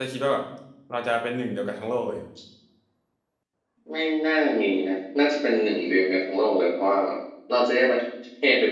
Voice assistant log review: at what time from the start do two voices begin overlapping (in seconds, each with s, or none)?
none